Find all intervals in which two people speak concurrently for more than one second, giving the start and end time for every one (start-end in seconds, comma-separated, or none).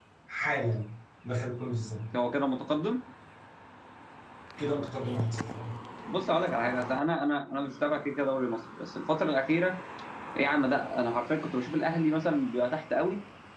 none